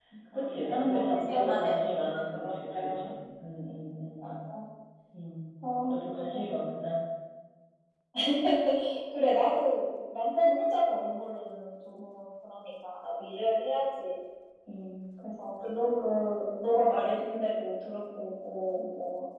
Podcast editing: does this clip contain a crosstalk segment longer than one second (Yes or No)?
Yes